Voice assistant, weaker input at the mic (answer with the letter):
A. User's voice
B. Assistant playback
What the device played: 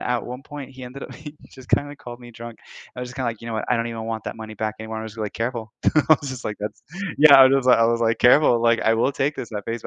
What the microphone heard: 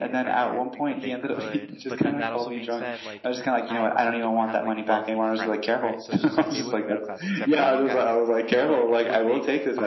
A